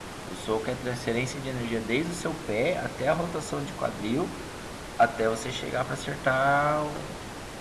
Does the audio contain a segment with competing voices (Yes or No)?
No